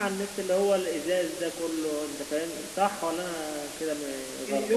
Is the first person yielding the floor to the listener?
Yes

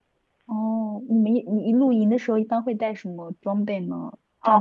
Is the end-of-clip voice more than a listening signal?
Yes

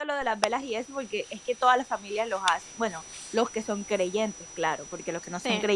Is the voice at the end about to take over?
No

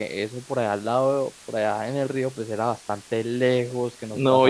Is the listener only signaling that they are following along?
No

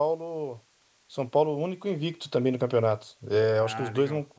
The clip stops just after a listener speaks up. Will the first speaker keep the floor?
Yes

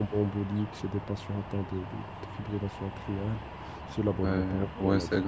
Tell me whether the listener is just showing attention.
No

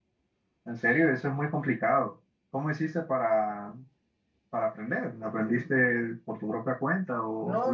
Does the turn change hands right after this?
Yes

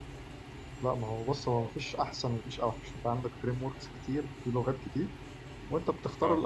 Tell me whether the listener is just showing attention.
Yes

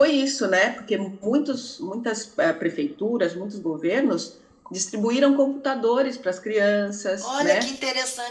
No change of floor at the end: No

